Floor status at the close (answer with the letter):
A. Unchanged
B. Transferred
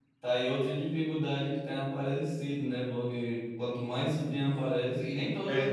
A